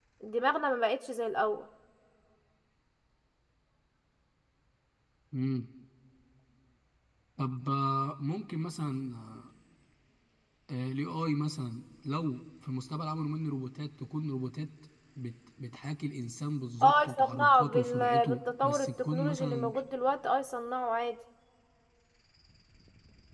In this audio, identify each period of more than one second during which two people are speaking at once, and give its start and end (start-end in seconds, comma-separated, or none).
16.8-19.7